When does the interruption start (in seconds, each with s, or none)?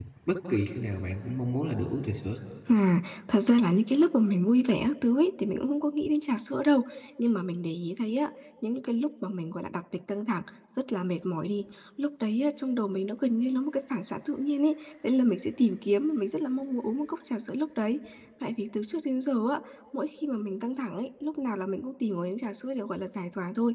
none